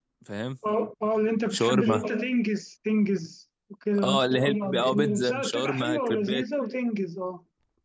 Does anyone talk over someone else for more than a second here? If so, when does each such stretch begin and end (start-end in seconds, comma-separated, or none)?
4.0-6.4